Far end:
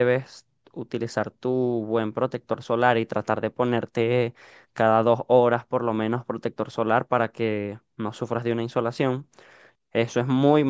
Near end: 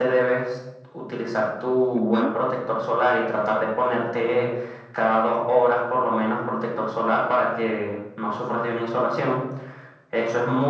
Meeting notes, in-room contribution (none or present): present